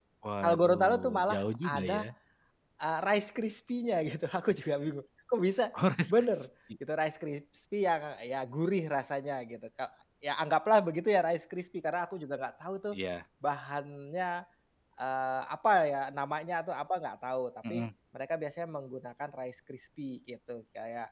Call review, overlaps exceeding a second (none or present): present